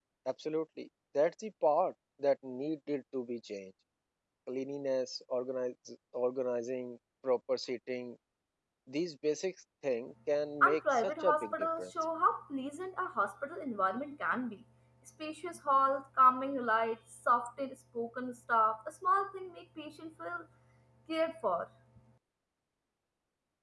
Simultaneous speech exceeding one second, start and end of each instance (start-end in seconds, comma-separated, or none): 10.6-11.8